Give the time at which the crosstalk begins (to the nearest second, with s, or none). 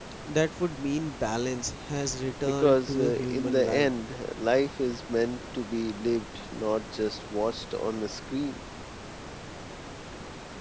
2 s